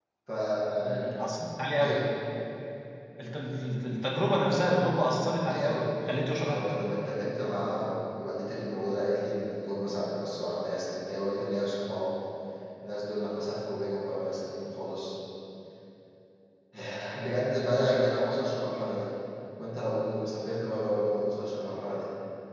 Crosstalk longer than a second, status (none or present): none